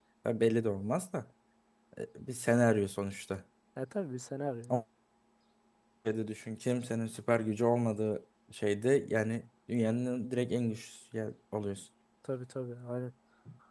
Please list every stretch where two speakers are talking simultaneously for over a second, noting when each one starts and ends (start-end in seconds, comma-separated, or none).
none